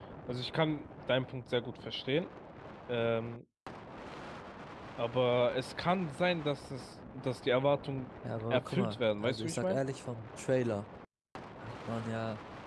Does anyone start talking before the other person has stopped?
Yes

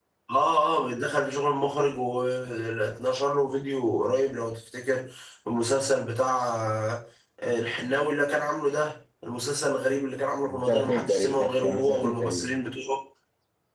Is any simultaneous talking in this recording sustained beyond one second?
Yes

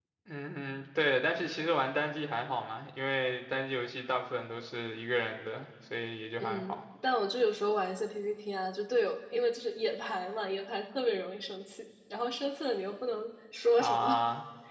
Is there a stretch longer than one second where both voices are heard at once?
No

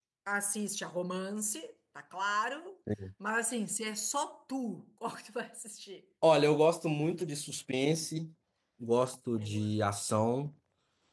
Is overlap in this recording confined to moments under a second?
Yes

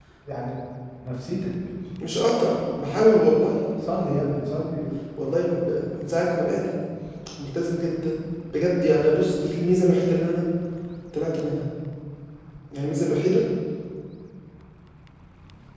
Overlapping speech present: No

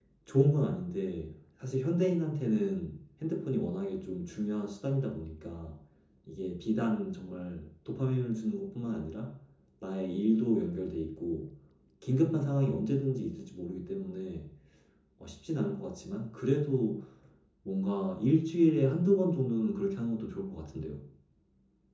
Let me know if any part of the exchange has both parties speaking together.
No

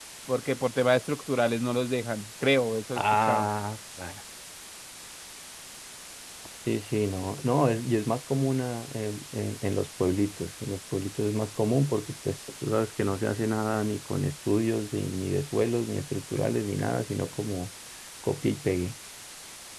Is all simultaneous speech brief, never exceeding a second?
Yes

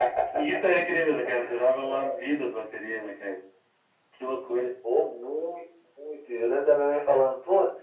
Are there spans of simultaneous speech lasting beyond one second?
No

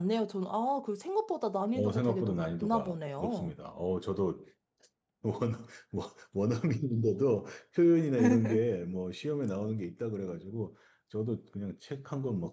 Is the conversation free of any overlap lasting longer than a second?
No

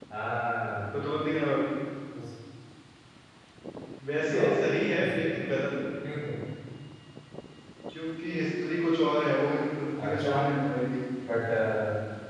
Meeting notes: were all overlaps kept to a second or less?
Yes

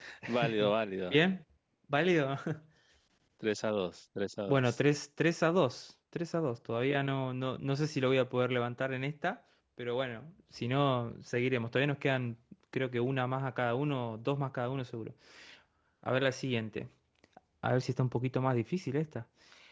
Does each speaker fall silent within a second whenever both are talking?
Yes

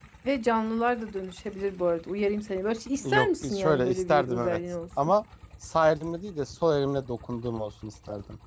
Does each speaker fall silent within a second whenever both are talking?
No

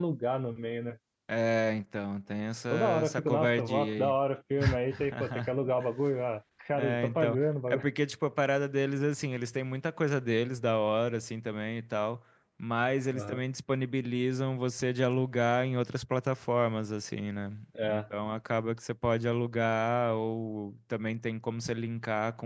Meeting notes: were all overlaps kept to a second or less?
No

